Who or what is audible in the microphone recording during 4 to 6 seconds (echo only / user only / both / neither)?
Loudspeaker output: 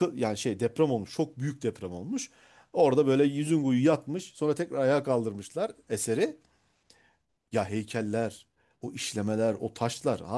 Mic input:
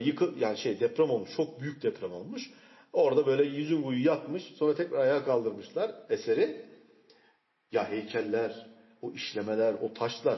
echo only